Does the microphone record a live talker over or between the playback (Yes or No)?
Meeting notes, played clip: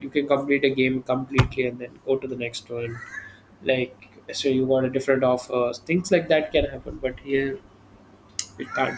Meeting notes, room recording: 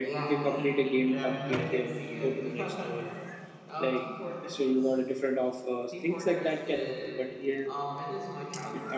Yes